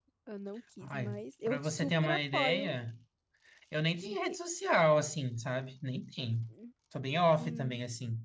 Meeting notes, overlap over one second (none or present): present